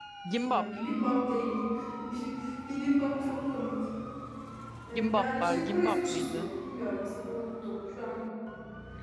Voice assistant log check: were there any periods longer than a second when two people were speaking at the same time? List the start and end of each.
4.9-6.5

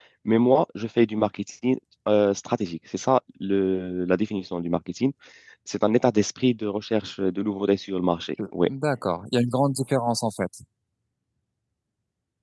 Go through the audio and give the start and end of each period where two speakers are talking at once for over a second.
none

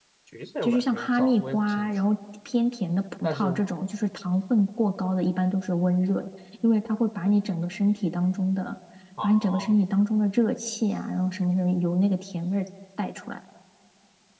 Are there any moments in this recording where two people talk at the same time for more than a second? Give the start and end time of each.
0.6-1.9

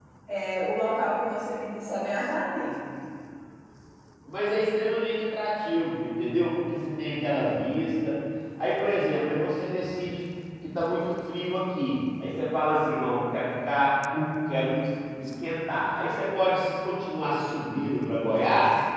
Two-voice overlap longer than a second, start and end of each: none

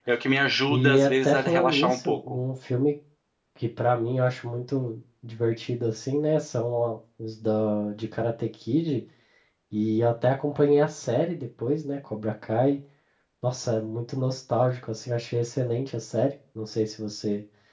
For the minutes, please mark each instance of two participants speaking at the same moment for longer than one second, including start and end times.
0.7-2.4

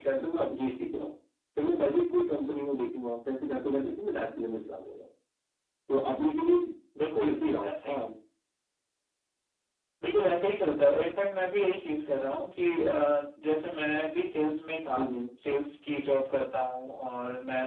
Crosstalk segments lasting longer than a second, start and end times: none

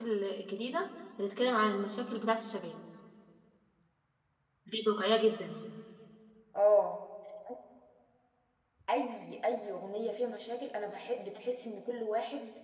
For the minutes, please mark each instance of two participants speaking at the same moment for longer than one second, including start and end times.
none

